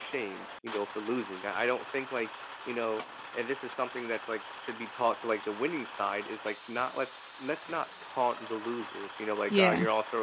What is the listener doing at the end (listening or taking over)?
listening